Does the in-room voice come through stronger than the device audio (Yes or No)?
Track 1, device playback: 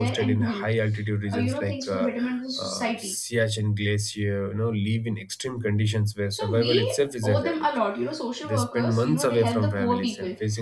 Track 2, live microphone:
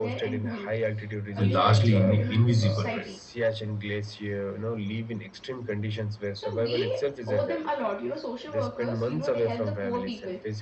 Yes